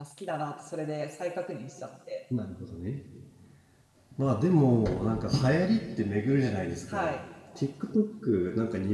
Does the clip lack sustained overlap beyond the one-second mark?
Yes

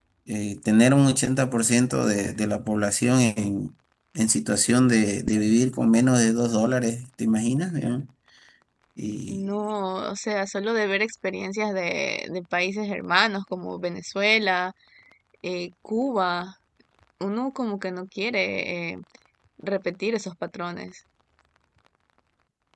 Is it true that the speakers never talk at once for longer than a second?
Yes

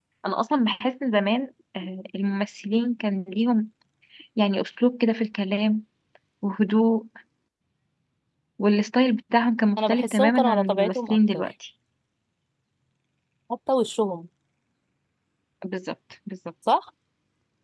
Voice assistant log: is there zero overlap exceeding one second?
No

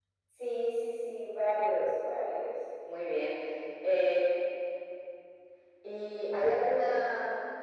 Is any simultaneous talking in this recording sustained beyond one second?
No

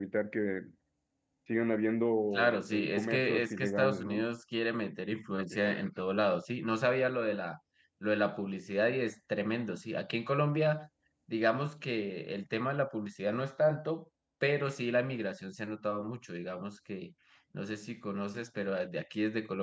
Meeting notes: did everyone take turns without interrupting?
No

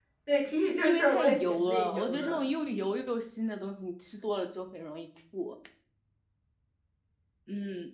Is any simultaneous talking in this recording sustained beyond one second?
Yes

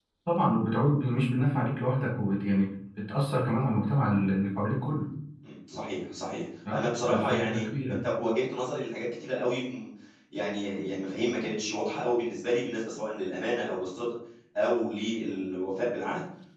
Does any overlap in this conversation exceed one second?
Yes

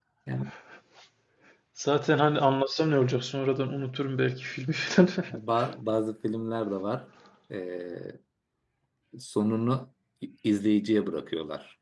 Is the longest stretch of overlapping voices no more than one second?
Yes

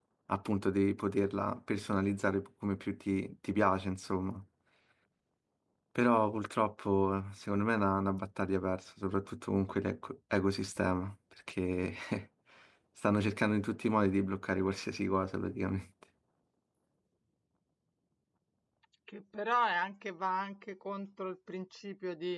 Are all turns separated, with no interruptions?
Yes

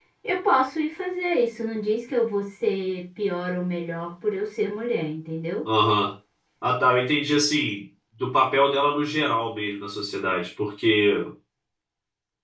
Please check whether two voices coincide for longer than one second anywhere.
No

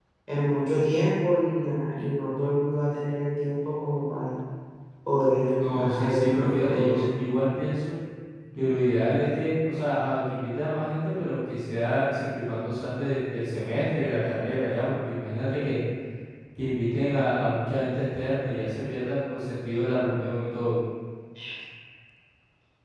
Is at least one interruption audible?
Yes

